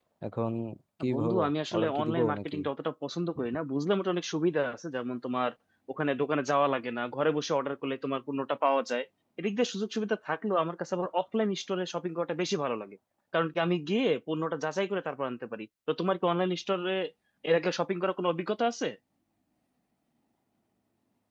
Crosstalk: present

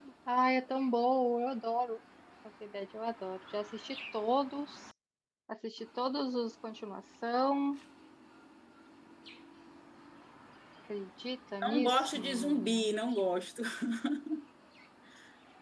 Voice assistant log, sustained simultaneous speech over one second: present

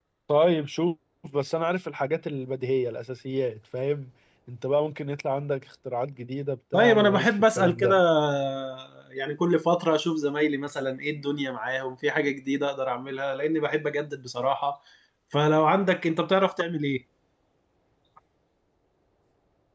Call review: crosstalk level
present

